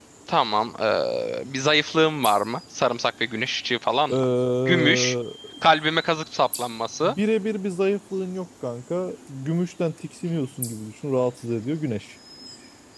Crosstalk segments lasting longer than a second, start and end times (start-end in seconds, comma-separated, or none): none